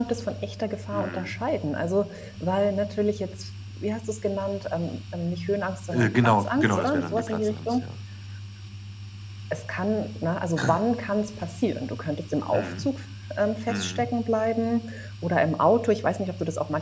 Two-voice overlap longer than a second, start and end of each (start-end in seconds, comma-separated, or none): 5.9-7.8